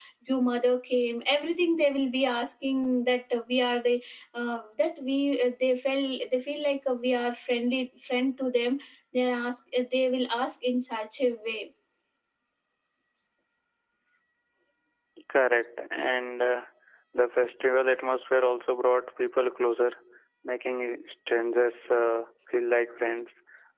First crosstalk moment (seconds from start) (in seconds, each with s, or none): none